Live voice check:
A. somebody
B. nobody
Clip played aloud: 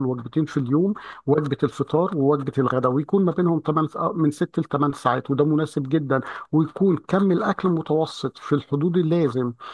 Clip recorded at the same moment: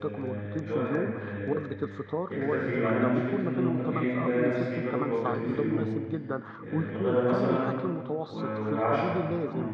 A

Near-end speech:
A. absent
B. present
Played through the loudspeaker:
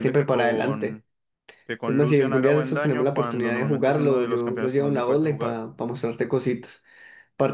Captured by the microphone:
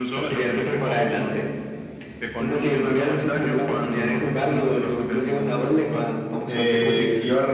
B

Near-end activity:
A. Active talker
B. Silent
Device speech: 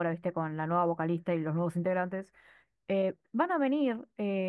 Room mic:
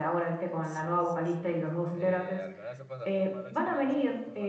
A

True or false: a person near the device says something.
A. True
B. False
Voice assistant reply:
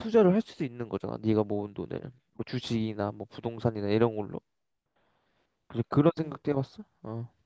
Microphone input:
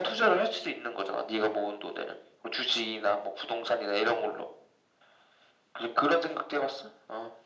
B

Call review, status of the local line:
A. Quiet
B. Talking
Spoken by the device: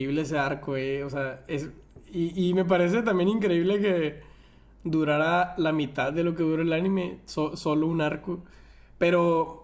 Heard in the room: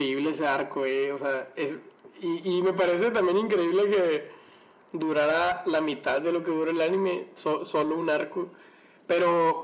A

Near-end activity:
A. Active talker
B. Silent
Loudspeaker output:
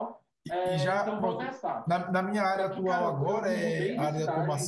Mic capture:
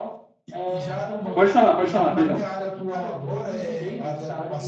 A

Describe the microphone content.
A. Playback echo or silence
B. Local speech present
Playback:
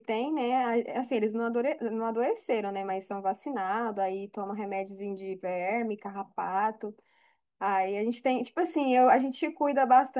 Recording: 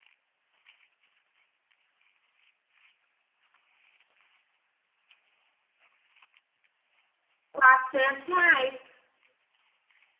B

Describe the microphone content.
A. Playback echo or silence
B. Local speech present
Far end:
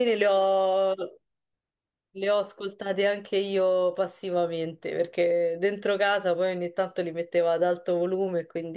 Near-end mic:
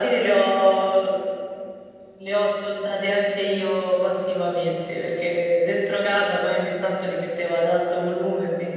A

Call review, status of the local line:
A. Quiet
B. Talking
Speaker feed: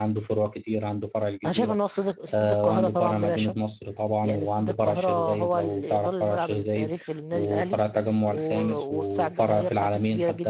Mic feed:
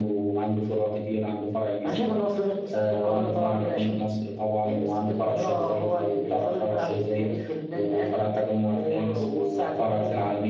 A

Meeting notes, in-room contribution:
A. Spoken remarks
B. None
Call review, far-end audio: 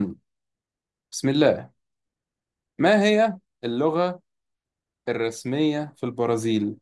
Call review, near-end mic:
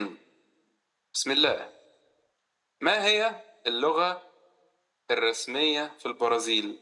B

